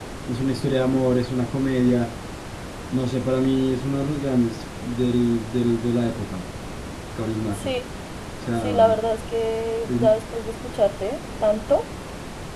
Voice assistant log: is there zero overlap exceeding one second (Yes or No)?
Yes